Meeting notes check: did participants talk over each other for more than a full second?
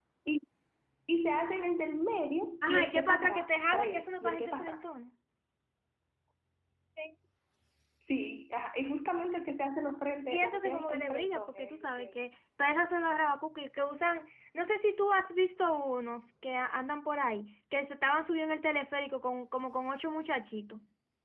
Yes, from 2.6 s

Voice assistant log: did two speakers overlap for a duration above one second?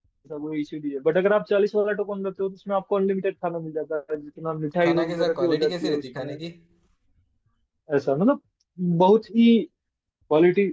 Yes, from 4.8 s

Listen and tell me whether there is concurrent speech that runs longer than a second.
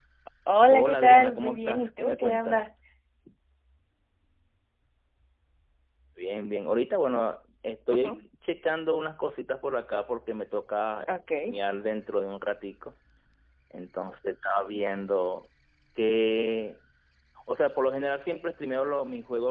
Yes, from 0.7 s

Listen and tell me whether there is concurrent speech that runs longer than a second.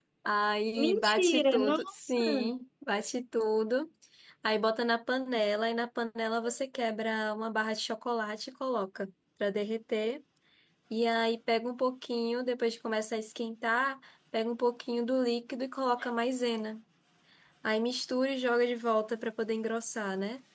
Yes, from 0.8 s

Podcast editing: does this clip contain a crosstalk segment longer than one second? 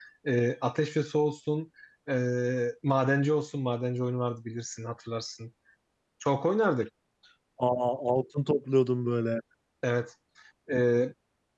No

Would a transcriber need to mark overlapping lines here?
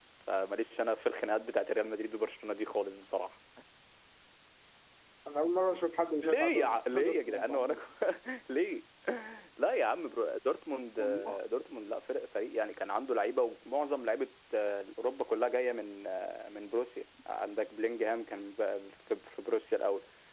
Yes, from 6.2 s

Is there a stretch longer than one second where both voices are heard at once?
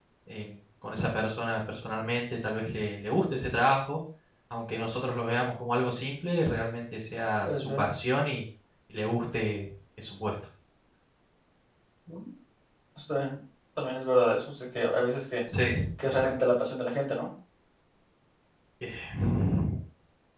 No

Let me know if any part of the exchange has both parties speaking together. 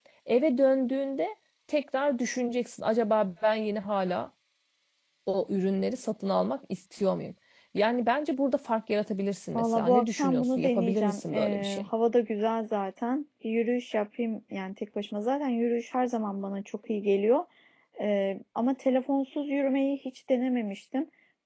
Yes, from 9.6 s

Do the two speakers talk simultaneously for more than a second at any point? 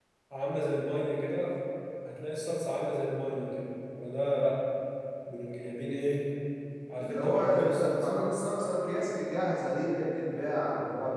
Yes, from 7.0 s

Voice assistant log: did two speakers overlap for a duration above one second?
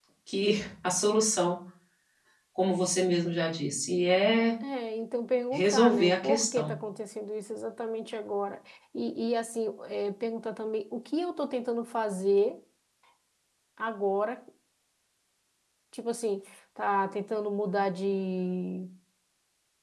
Yes, from 5.5 s

